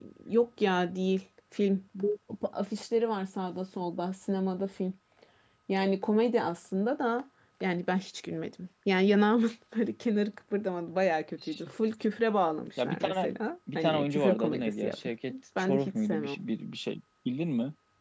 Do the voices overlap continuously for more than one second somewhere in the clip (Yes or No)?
Yes